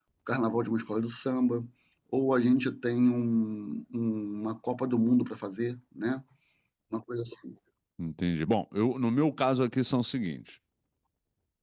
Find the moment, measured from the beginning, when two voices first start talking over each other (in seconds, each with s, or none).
none